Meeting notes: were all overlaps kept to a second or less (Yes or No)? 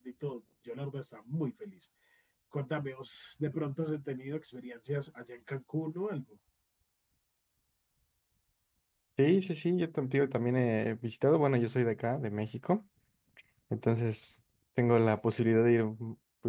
Yes